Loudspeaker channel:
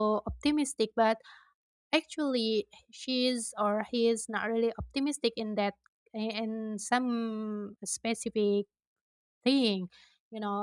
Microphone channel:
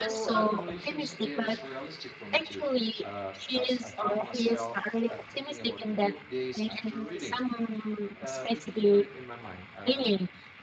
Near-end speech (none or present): present